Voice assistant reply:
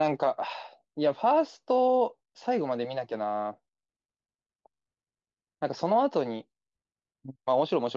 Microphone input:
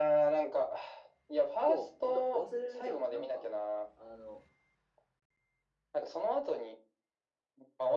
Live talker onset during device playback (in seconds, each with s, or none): 1.6 s